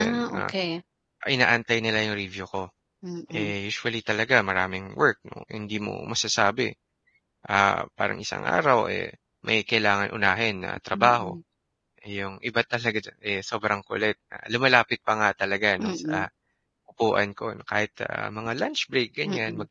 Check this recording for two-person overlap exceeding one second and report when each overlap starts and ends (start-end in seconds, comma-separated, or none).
none